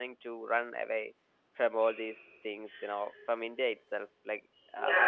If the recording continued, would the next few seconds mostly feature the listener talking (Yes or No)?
Yes